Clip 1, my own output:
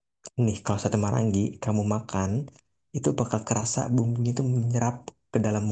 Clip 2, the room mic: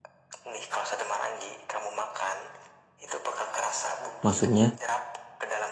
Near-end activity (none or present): present